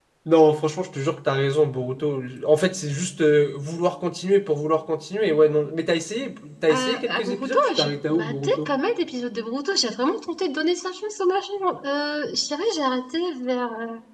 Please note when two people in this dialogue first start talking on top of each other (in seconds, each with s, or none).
6.7 s